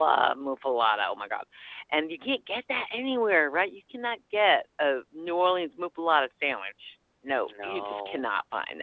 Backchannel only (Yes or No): Yes